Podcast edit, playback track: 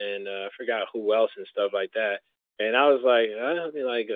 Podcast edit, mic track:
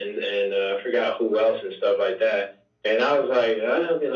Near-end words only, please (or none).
none